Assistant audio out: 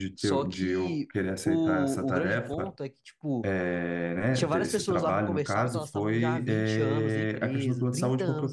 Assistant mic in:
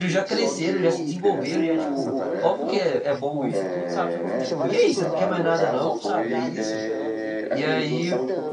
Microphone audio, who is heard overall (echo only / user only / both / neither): both